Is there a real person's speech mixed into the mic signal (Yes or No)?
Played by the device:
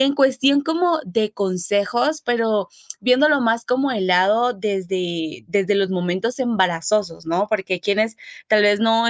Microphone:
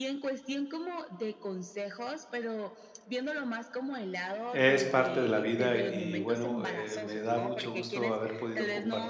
Yes